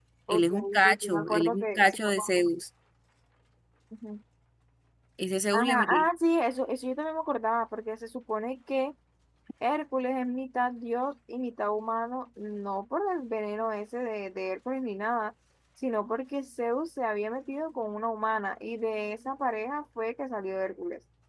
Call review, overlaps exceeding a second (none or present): present